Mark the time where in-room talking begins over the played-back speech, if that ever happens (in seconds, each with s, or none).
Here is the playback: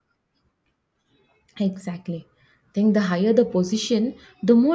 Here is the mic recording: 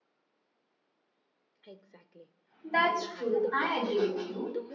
2.6 s